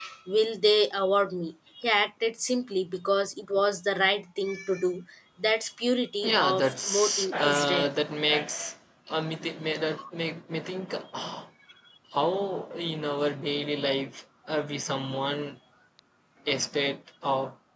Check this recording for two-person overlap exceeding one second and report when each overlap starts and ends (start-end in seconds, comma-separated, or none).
6.2-7.9